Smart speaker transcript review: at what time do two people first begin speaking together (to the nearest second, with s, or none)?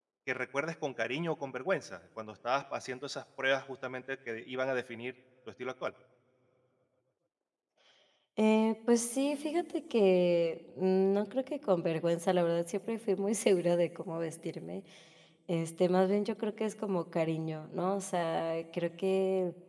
none